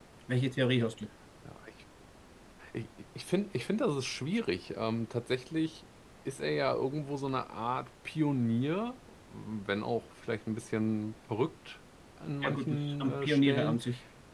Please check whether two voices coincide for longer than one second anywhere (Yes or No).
Yes